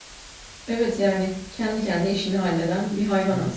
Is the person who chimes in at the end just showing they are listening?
No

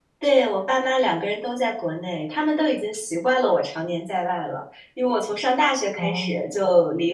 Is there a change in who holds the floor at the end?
No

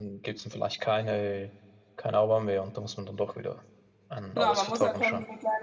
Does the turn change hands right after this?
Yes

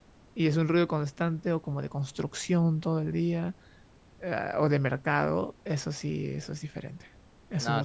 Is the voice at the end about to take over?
Yes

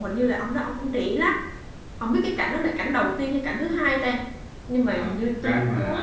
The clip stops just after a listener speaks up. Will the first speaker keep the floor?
No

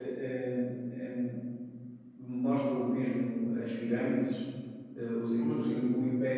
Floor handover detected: No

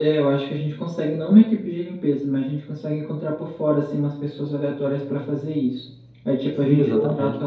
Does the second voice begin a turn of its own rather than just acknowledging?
No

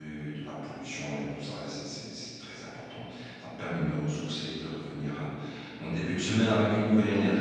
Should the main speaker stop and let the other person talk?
Yes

